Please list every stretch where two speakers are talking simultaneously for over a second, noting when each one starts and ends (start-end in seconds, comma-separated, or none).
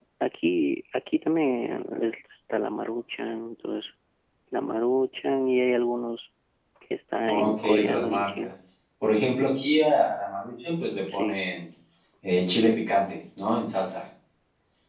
7.3-8.5